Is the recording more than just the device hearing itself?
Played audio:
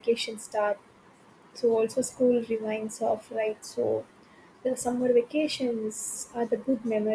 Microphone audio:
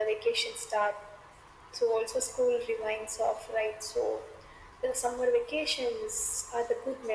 No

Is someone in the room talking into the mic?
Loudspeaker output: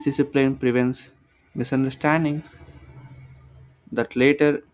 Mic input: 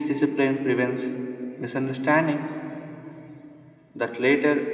No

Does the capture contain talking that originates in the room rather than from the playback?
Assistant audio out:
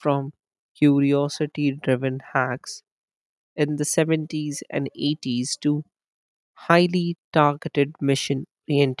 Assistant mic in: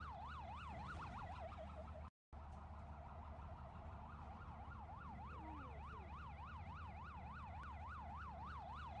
No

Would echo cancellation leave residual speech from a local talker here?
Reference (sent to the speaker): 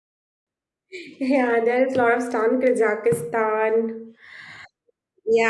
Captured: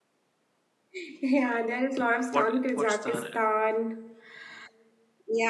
Yes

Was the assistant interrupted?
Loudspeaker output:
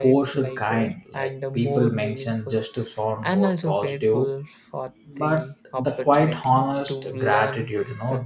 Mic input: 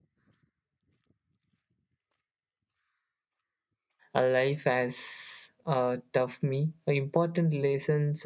Yes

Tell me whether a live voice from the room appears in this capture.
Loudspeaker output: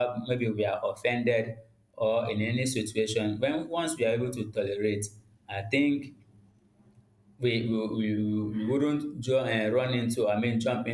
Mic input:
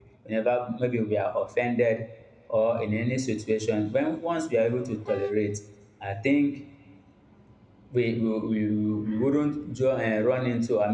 No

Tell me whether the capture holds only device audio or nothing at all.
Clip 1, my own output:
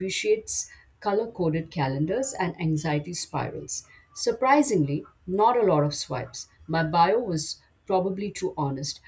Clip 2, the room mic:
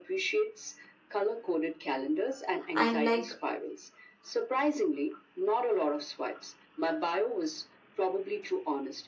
No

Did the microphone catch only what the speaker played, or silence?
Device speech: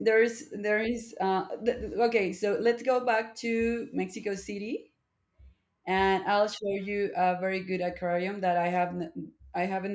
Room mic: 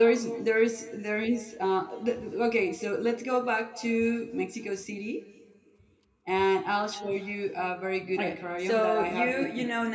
No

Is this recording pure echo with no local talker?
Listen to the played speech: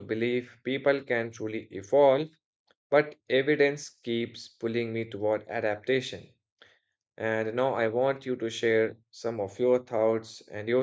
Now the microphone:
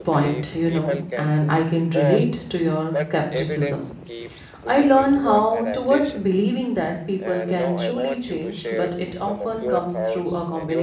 No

